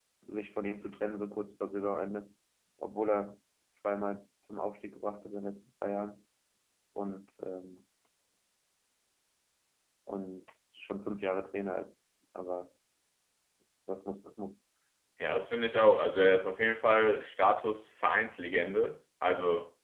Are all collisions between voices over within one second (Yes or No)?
Yes